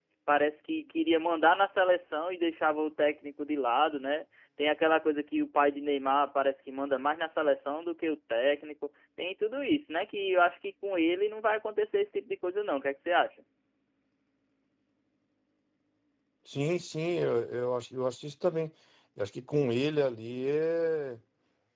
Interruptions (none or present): none